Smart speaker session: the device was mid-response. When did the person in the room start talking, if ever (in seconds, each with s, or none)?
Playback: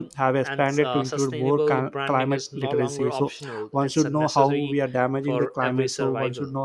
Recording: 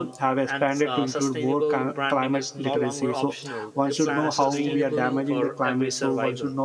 3.9 s